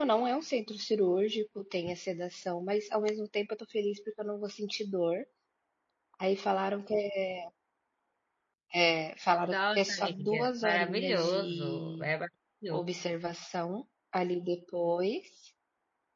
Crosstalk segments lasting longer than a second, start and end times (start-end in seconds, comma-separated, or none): 9.5-12.1